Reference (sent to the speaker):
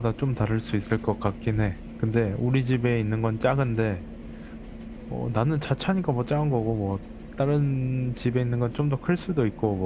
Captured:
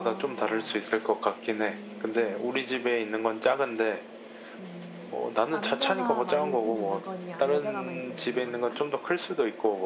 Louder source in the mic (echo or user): echo